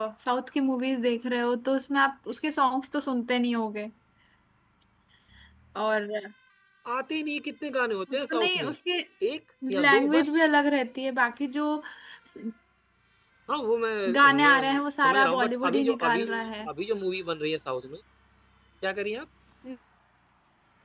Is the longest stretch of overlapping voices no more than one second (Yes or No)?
No